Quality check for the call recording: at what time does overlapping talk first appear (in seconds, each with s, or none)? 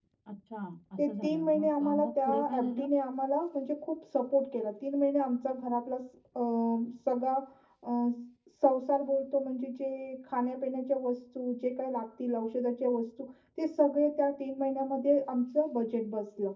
1.0 s